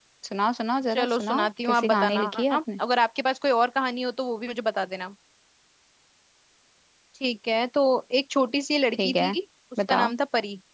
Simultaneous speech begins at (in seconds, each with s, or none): 0.9 s